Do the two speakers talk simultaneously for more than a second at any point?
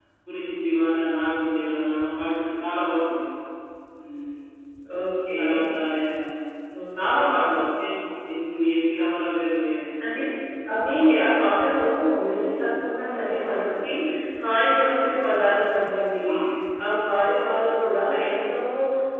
No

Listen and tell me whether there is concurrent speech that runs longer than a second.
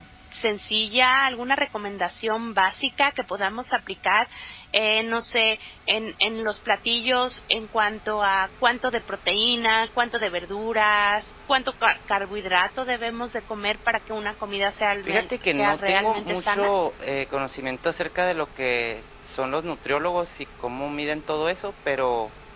Yes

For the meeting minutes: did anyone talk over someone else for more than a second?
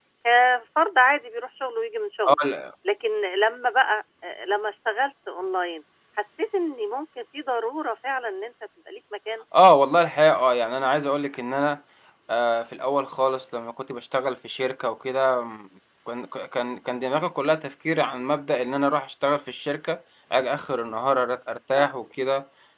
No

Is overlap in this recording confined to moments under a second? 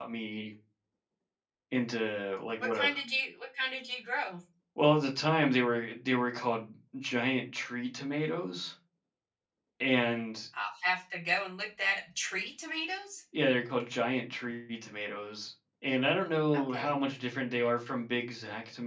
Yes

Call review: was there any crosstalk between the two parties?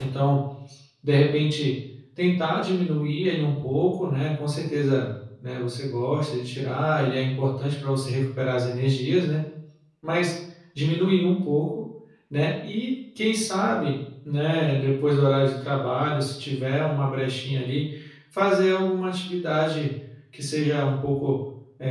No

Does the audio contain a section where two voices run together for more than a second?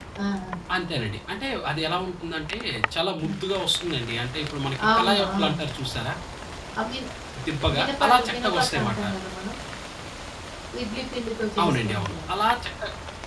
Yes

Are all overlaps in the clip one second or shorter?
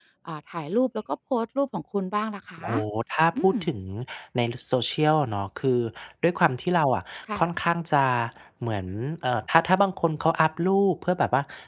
Yes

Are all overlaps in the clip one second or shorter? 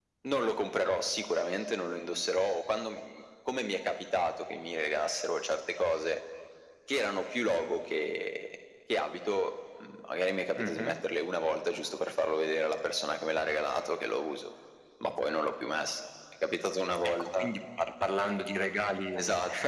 Yes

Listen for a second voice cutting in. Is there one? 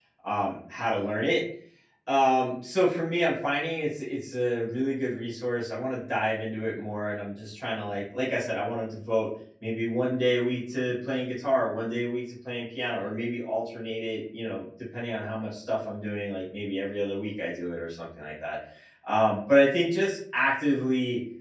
No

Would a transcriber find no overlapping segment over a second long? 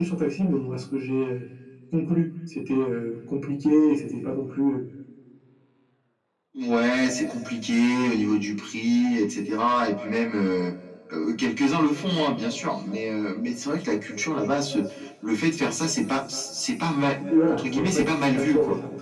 No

